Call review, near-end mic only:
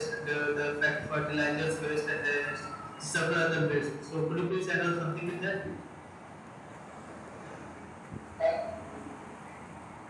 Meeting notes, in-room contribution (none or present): none